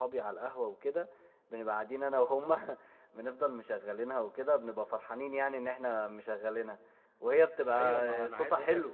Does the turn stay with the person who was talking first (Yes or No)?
No